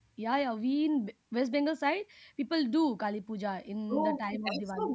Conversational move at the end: taking over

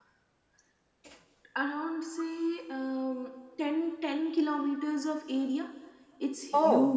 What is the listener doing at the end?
listening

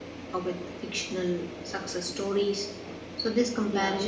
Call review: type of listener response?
listening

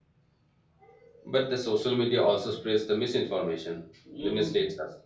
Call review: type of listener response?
taking over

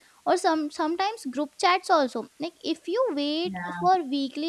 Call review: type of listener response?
listening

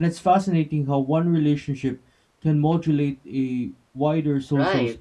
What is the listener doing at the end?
taking over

